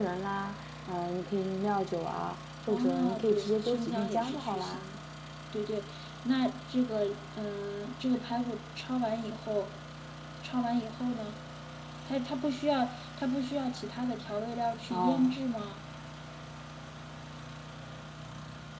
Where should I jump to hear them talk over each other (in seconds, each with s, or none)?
2.7 s